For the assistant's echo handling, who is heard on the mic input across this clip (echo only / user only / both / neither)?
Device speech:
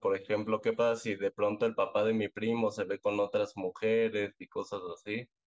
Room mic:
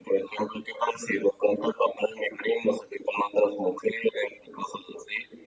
echo only